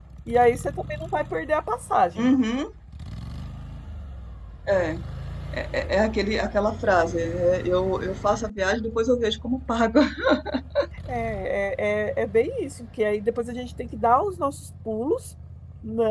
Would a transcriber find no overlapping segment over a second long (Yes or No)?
Yes